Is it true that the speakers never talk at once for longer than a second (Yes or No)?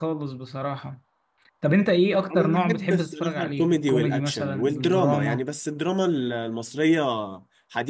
No